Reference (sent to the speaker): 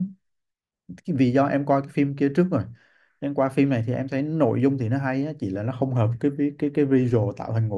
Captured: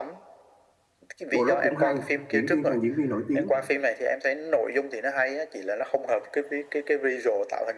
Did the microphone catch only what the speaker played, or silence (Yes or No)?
No